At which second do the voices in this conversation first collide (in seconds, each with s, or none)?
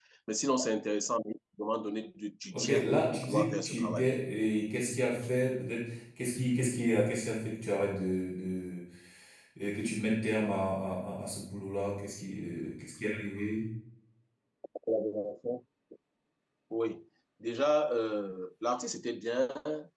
2.5 s